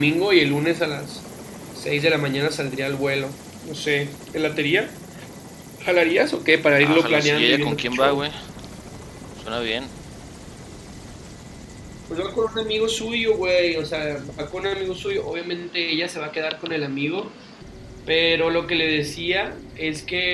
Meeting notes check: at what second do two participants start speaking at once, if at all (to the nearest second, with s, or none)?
7 s